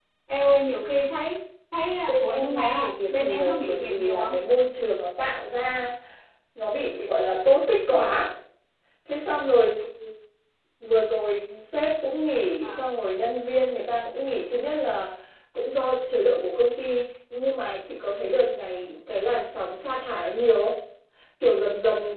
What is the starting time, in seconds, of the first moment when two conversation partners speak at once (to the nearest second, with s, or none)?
2 s